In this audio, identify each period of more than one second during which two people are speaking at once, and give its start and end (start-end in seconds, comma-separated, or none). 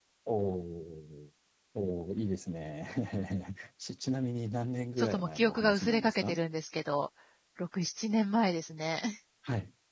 5.0-6.4